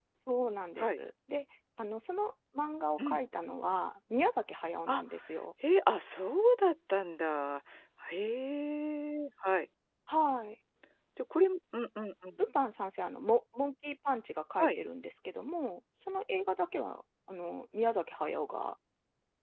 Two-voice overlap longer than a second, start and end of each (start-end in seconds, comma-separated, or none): none